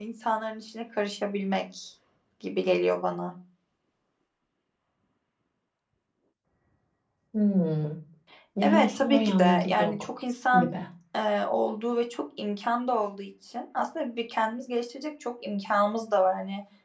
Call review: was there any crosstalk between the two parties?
Yes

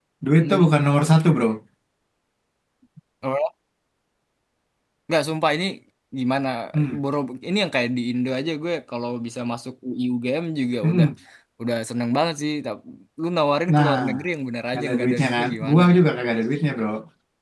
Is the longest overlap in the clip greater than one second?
Yes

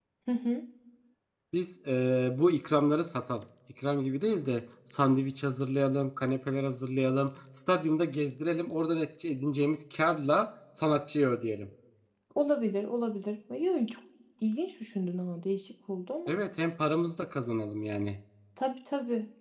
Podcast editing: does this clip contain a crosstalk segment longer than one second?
No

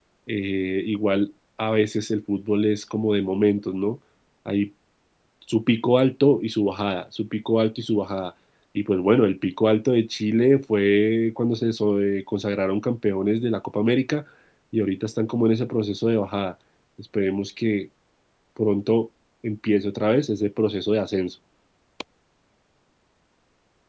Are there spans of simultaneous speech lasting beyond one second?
No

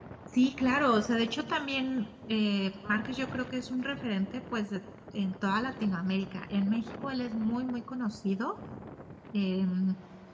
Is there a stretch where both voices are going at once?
No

